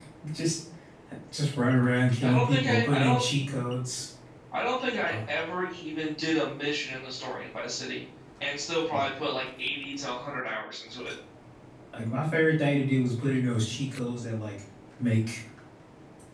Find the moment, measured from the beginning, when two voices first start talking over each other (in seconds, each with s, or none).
2.2 s